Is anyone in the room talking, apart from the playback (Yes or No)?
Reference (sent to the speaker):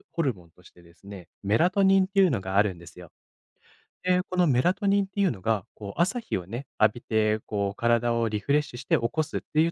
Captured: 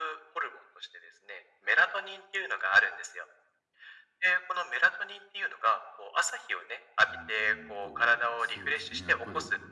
Yes